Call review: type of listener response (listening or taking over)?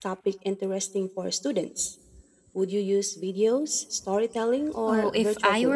taking over